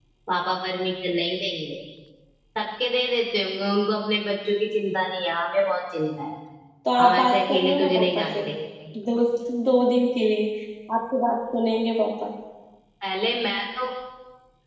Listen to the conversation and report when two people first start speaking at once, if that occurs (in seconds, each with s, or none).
7.0 s